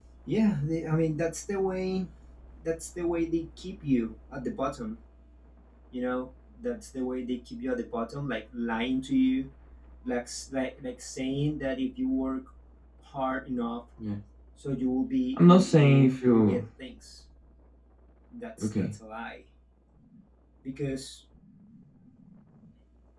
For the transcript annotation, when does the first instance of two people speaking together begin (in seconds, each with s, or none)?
15.4 s